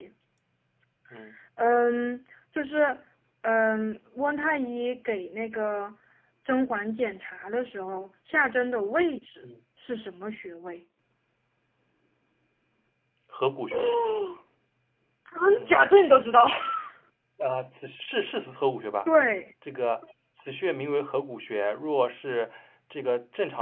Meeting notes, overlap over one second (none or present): none